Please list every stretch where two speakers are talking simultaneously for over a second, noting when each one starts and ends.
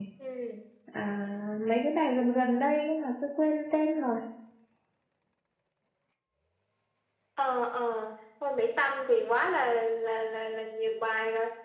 none

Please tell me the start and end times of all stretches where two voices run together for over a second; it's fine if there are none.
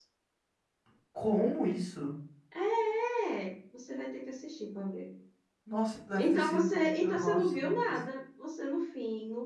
6.2-7.9

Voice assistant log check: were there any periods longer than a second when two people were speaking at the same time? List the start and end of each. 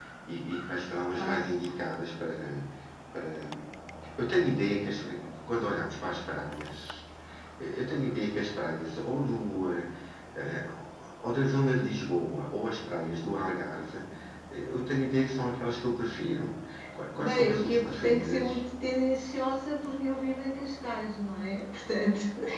17.2-18.6

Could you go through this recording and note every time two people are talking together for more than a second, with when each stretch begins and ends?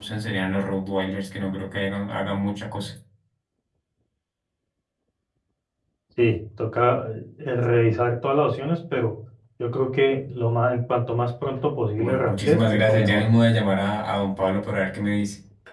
12.0-13.3

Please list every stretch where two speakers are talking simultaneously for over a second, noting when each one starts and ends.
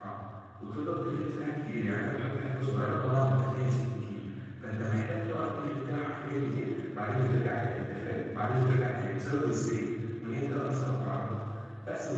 none

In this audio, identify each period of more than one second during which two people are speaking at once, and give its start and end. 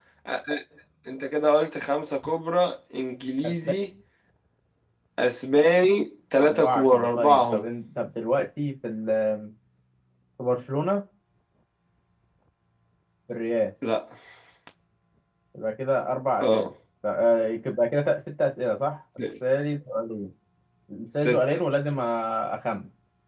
6.4-7.7

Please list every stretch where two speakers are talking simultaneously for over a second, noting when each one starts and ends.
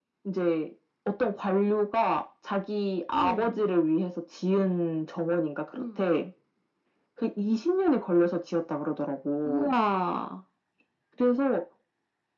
none

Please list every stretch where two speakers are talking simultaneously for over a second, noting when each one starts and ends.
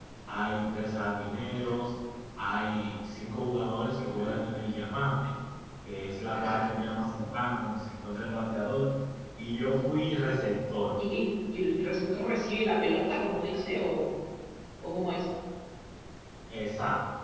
none

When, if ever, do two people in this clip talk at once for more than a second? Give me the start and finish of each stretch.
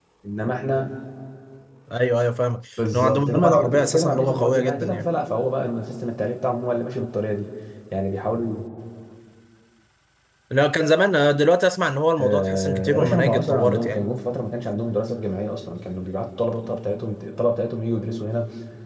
2.9-5.1, 12.2-14.1

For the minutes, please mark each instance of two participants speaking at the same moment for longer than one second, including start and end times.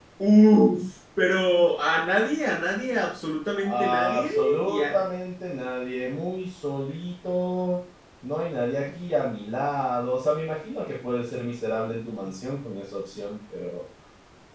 3.7-5.0

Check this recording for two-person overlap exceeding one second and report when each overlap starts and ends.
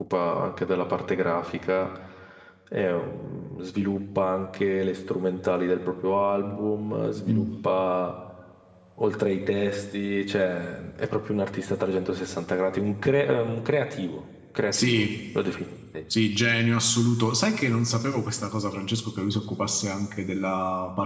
none

